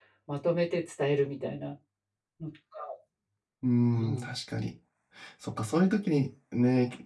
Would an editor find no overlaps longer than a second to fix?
Yes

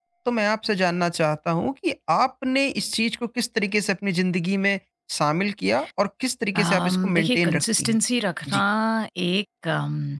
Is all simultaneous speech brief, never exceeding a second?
No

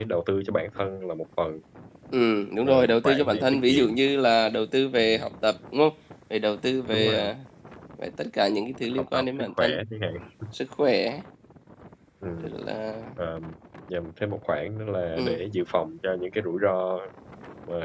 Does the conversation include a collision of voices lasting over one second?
Yes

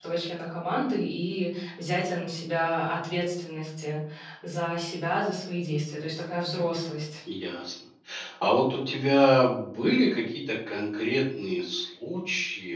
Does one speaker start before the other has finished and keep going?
No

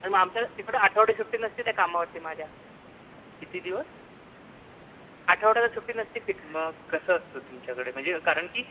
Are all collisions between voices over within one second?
Yes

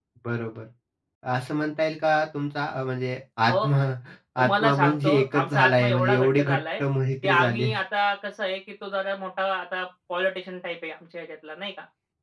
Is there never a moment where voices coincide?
No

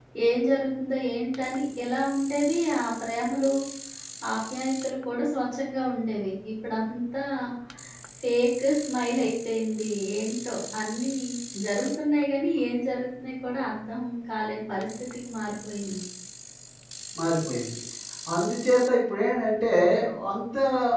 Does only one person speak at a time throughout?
Yes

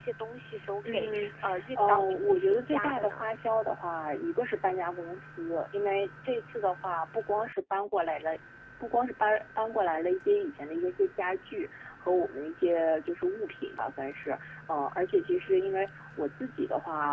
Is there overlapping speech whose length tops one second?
Yes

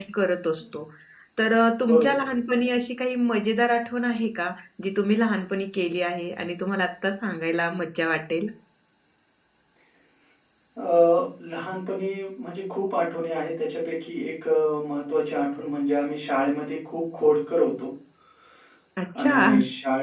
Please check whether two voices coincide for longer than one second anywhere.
No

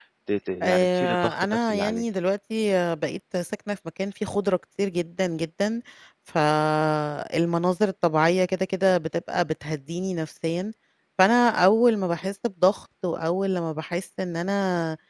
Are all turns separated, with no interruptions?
No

